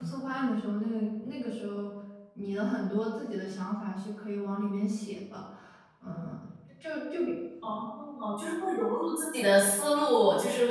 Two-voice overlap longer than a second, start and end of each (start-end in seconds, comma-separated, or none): none